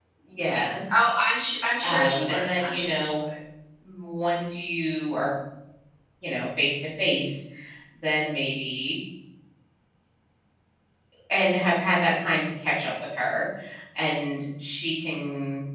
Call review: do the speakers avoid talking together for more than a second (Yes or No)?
No